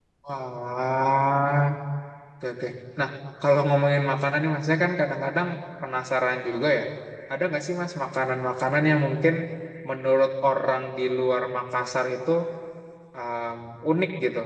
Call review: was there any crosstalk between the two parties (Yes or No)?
No